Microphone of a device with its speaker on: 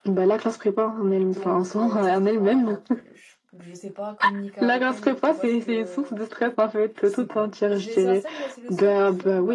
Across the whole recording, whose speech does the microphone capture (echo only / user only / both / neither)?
both